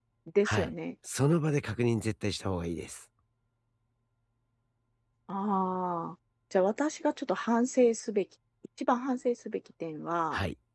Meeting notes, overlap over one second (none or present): none